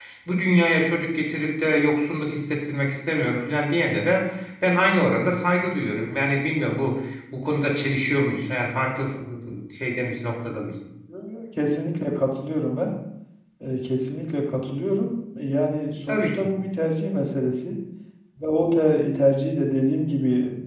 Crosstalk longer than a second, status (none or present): none